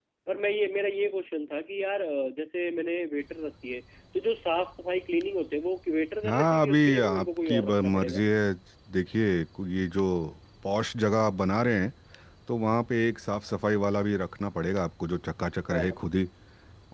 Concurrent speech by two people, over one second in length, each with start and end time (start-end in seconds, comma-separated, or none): 6.3-8.2